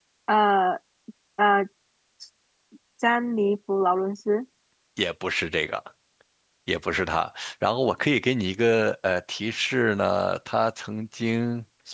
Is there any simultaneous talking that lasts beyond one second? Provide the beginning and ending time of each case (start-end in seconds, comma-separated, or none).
none